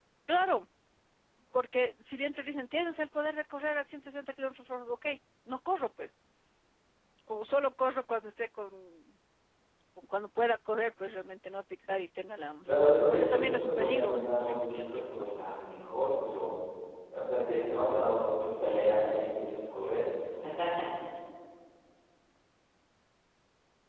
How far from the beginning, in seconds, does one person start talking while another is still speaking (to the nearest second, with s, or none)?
13 s